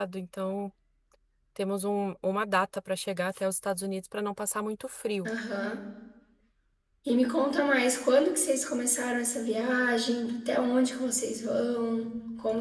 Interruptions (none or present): none